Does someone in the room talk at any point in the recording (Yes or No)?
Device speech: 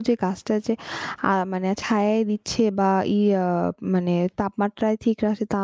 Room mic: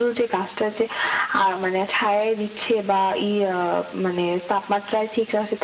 No